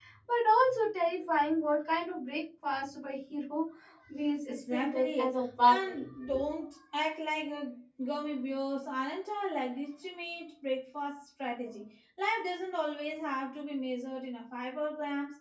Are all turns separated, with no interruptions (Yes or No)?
No